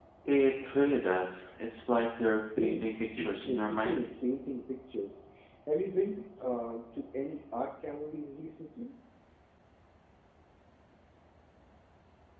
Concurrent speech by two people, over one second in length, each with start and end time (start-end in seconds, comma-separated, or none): 2.6-4.0